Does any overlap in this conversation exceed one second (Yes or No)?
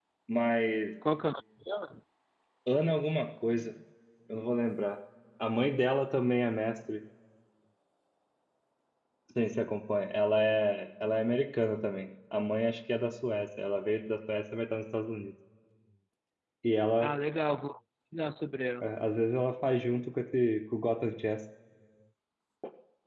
No